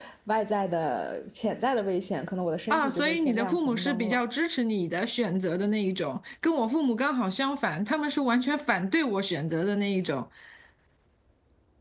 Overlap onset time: 2.7 s

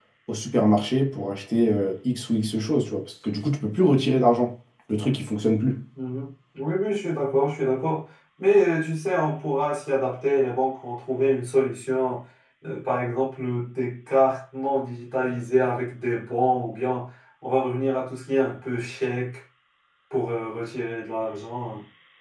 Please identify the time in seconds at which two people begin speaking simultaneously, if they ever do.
none

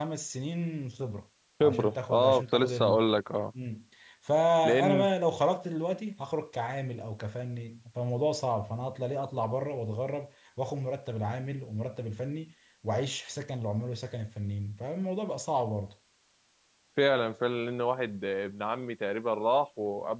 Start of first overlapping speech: 1.6 s

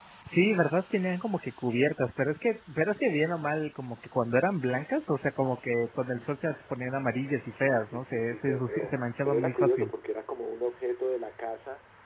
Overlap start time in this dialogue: 7.6 s

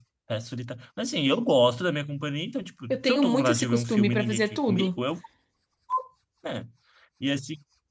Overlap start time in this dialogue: 2.9 s

